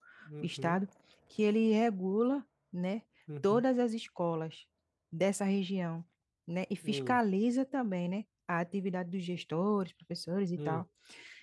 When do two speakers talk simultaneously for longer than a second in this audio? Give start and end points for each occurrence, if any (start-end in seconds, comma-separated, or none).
none